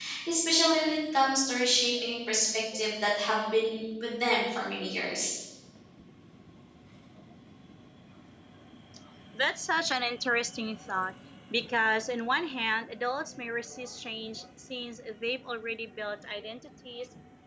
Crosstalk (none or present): none